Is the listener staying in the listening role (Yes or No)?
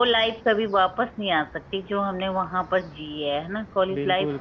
No